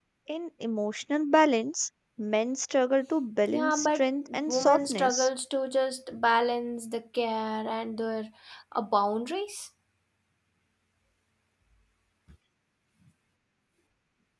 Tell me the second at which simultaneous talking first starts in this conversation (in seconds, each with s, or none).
3.5 s